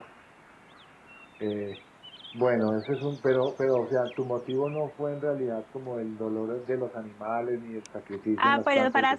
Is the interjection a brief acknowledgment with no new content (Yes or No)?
No